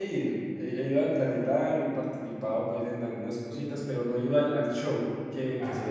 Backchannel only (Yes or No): Yes